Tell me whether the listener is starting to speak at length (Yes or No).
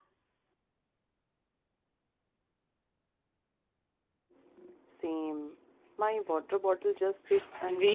Yes